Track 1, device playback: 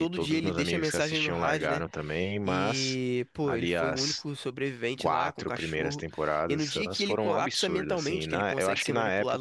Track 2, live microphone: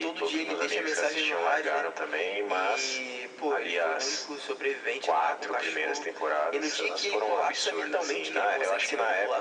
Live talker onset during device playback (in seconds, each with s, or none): none